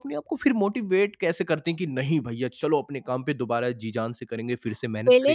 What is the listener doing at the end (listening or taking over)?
taking over